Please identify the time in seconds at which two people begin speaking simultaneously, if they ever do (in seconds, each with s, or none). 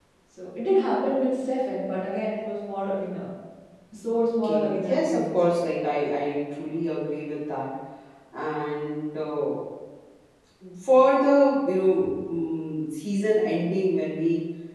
4.4 s